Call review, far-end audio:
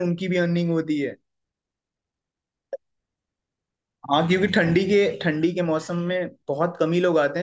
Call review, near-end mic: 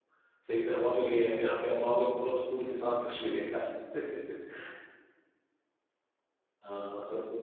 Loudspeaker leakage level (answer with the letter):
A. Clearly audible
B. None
B